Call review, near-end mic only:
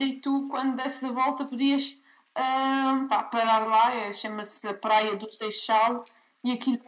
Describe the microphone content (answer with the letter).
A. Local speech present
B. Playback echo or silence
B